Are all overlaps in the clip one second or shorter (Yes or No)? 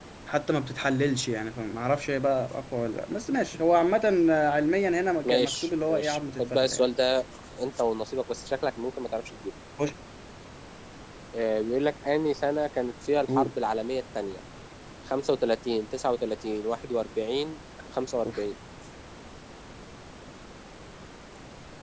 No